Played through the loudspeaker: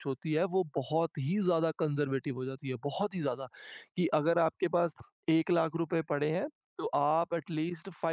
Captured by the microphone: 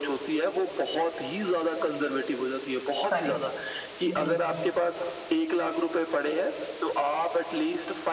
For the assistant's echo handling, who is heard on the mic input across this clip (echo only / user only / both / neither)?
both